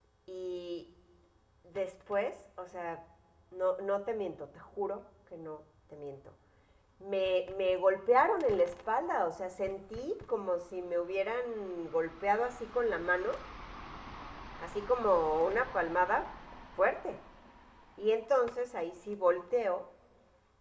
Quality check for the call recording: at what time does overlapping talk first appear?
none

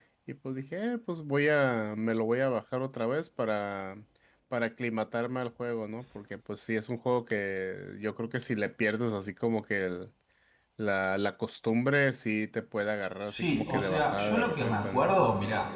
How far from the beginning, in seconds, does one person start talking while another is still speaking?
13.3 s

